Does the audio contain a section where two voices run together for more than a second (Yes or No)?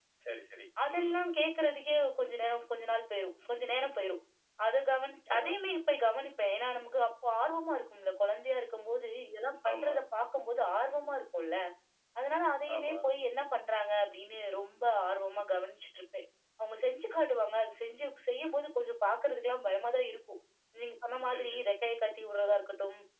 No